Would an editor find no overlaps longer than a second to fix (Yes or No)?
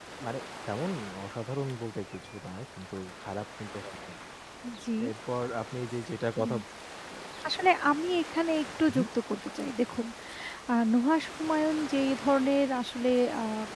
Yes